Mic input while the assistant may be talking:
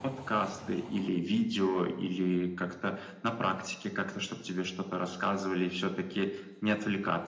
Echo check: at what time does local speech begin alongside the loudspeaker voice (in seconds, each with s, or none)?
none